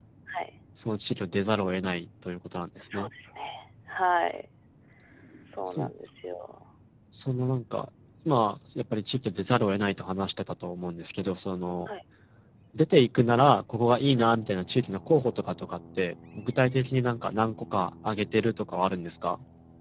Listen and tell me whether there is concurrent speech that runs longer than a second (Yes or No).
No